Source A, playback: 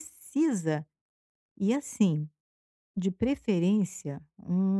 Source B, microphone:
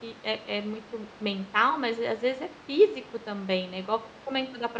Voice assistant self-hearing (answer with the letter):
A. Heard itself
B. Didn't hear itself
B